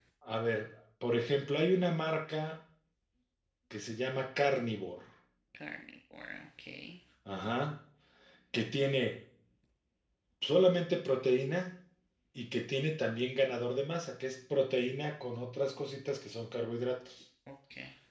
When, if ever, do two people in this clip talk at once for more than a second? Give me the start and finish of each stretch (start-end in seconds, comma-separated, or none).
none